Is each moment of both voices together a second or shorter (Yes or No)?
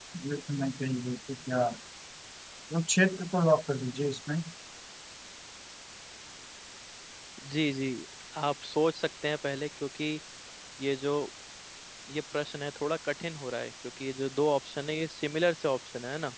Yes